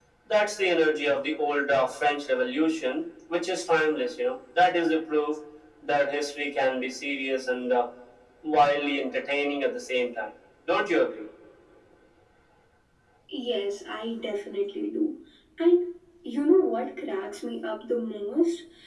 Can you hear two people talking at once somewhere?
No

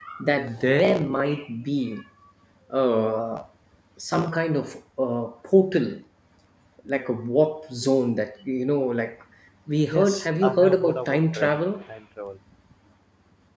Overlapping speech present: Yes, from 9.9 s

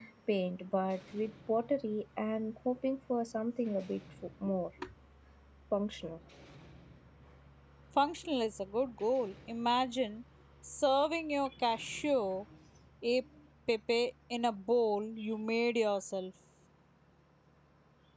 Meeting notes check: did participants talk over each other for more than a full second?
No

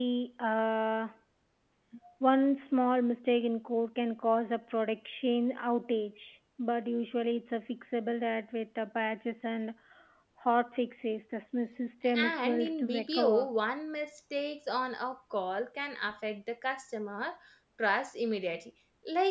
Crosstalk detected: Yes, from 12.0 s

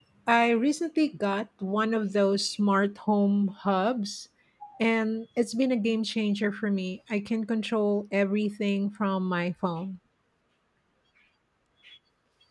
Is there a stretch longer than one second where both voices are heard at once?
No

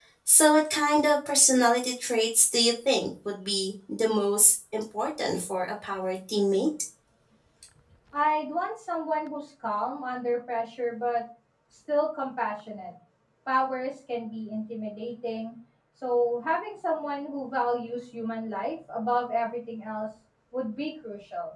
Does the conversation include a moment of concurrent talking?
No

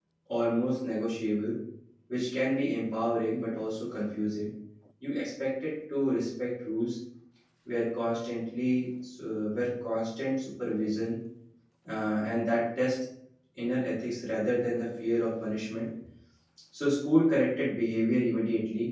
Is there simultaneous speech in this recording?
No

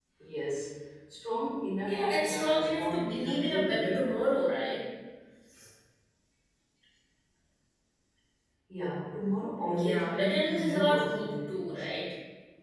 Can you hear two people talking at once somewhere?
Yes, from 1.9 s

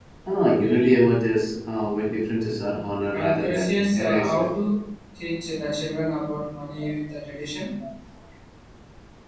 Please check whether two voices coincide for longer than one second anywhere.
Yes, from 3.1 s

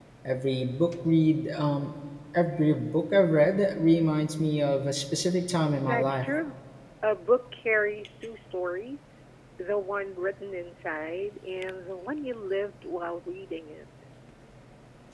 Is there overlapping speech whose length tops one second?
No

